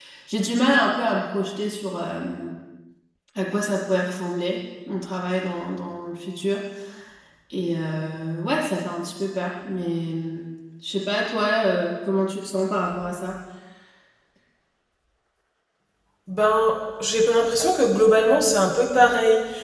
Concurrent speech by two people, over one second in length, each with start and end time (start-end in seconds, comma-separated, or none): none